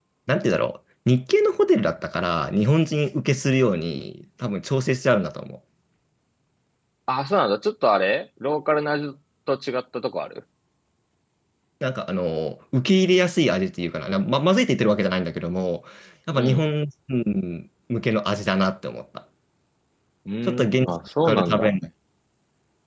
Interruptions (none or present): present